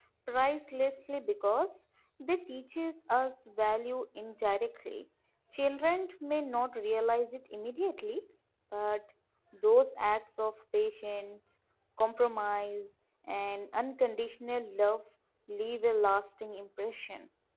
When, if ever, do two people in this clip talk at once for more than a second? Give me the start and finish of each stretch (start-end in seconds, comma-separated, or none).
none